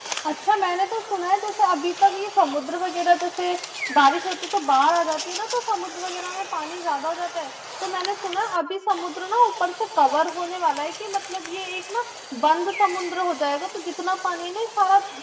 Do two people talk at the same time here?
No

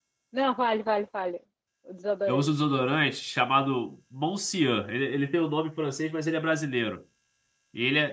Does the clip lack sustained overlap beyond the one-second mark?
Yes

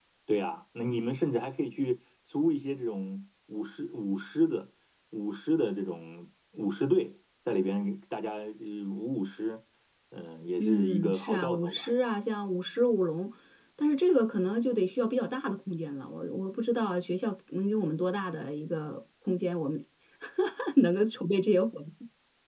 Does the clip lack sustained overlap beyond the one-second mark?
No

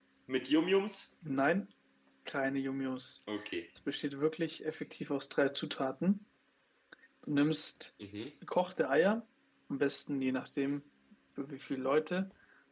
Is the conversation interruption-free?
Yes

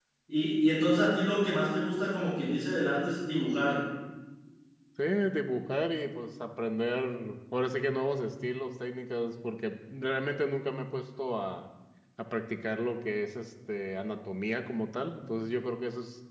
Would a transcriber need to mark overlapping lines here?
No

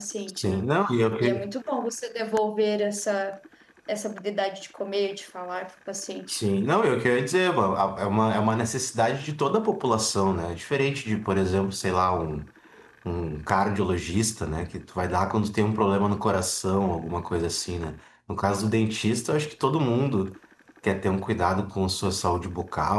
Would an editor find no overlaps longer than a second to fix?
Yes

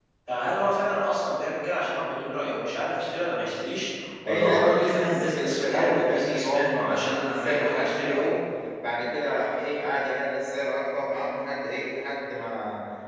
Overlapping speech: Yes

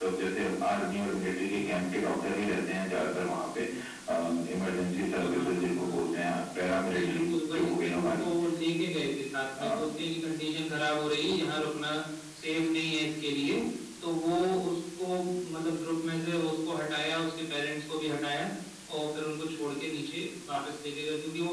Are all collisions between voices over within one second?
No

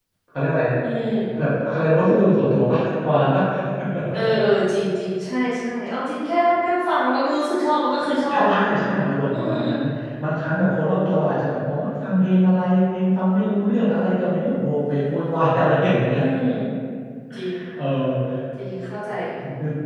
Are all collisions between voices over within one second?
Yes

